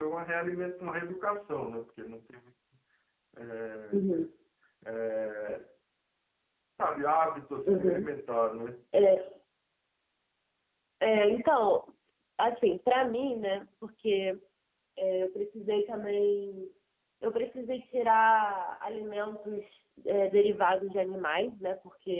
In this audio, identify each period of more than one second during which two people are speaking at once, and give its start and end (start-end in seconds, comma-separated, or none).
none